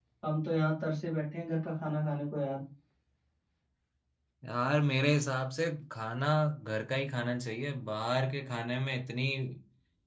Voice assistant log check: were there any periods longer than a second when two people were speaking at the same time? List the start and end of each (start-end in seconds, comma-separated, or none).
none